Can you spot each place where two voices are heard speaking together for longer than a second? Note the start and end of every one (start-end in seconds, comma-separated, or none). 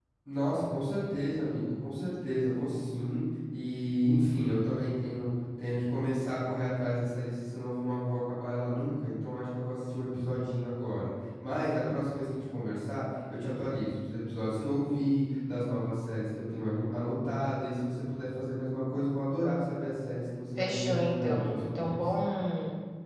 20.6-22.0